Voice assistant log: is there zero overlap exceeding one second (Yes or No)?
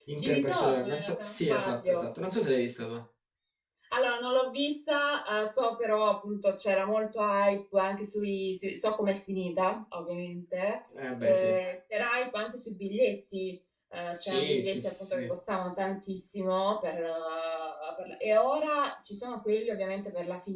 No